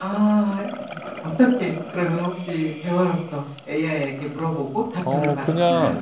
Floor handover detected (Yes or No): Yes